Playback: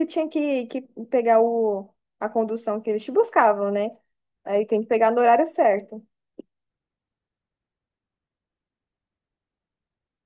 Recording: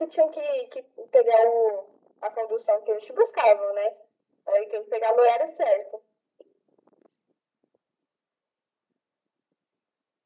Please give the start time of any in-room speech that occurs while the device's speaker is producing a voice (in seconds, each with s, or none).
none